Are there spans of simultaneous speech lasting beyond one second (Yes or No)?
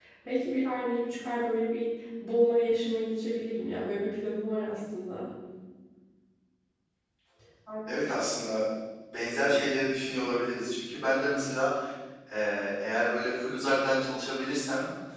No